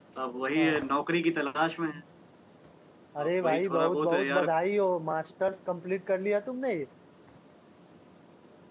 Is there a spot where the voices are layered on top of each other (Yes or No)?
Yes